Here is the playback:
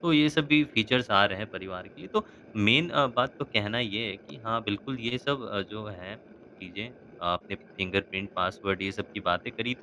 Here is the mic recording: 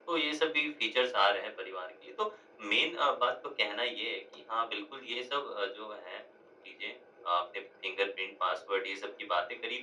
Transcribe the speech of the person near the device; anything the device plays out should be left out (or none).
none